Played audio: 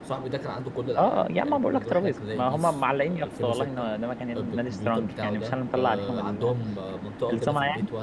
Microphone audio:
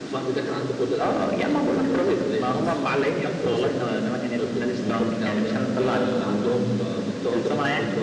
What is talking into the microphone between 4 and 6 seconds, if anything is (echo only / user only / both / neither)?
echo only